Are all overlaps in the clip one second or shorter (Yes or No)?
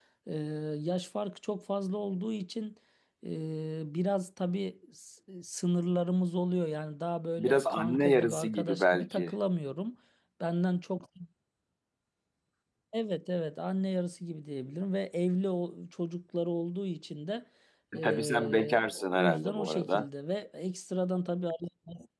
No